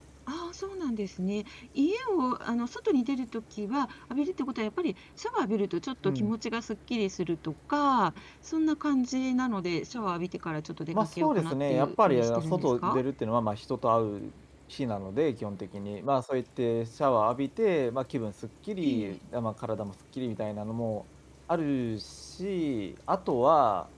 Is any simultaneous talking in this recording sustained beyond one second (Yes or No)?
Yes